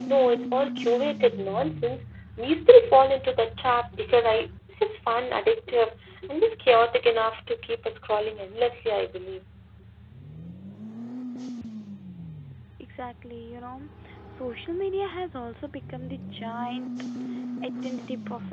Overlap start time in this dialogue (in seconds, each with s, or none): none